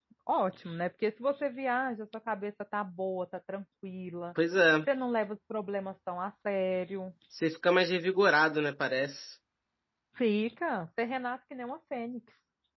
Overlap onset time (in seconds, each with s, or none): none